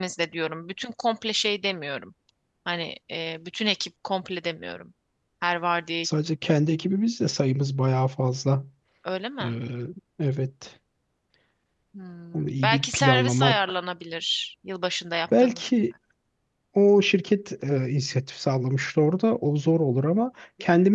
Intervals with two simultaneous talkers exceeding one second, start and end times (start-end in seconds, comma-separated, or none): 12.3-13.6